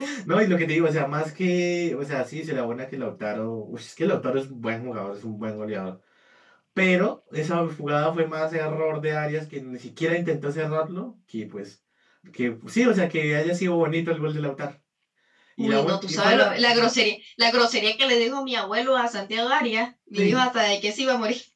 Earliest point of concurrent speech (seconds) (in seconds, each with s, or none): 15.6 s